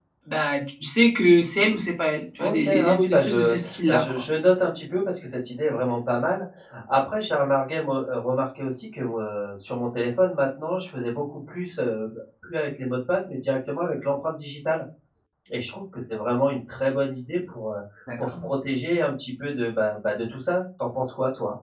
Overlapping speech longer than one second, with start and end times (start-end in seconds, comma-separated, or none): 2.4-4.2